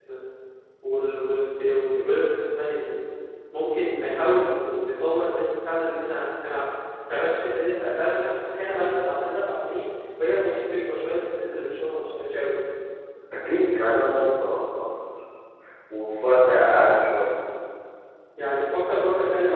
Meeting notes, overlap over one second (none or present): none